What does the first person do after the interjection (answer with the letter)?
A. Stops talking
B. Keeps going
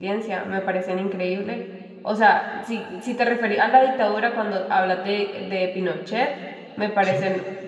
B